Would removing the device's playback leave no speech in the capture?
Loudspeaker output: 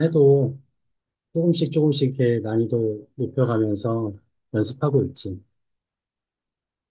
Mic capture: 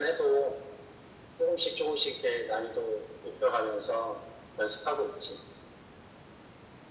Yes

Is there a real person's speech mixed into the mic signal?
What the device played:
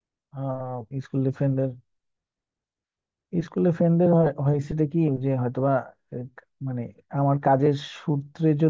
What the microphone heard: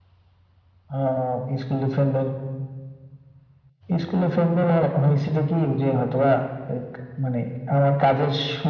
No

